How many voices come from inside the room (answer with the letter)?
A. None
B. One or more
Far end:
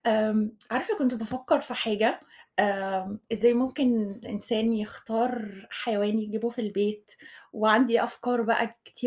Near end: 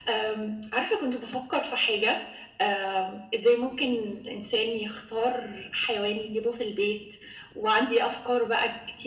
A